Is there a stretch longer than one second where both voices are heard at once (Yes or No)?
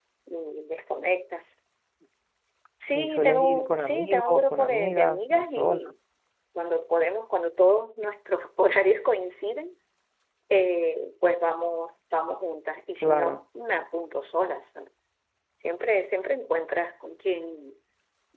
Yes